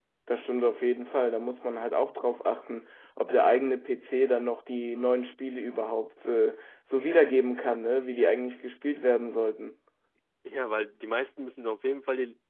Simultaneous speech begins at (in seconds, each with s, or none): none